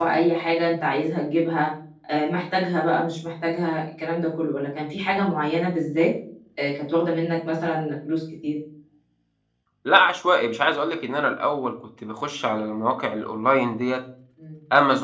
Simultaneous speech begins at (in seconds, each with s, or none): none